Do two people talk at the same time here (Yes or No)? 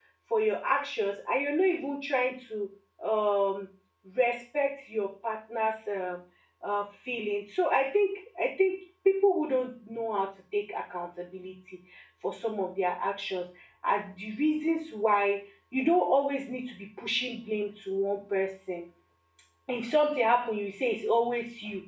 No